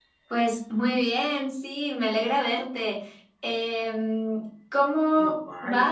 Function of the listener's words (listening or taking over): listening